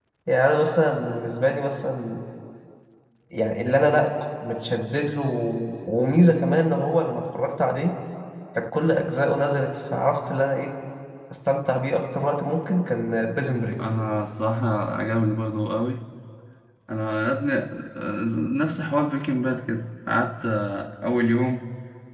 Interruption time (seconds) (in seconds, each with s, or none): none